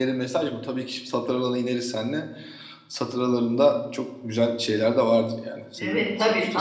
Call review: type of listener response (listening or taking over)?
taking over